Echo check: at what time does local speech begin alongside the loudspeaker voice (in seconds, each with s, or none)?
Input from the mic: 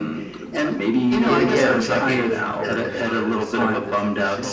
1.1 s